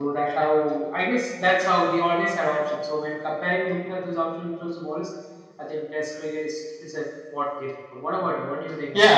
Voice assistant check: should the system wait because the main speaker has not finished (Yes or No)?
No